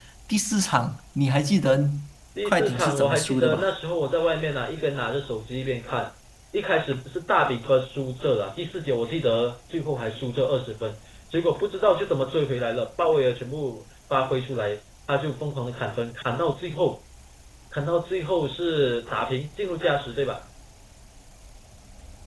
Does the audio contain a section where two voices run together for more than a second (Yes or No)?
Yes